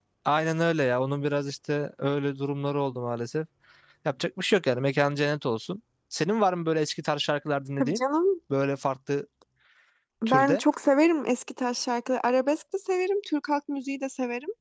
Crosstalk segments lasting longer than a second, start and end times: none

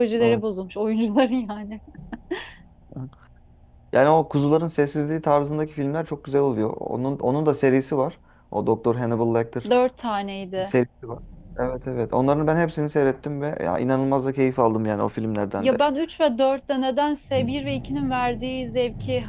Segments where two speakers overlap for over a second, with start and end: none

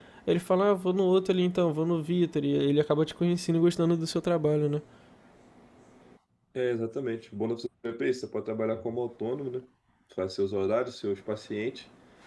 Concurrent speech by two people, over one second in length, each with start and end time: none

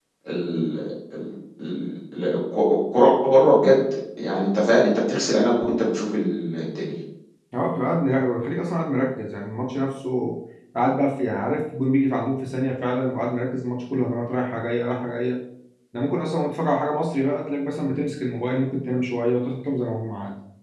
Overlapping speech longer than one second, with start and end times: none

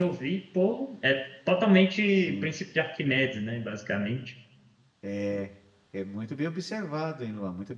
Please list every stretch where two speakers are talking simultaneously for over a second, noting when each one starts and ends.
none

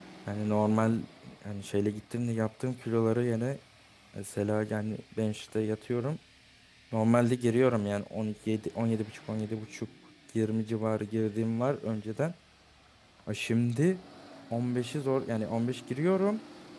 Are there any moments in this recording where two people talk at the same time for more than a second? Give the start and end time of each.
none

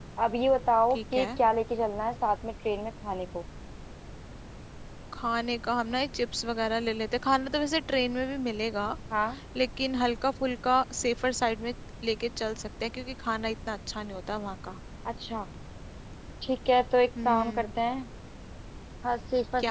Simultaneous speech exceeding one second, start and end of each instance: none

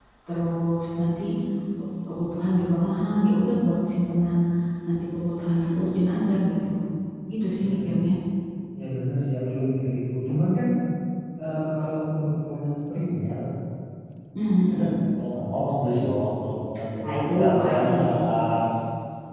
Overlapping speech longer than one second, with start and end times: 17.0-18.3

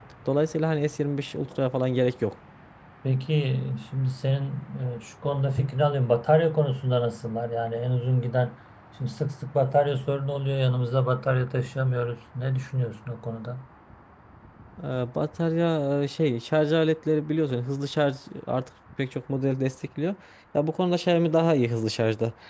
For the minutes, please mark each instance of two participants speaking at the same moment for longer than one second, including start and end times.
none

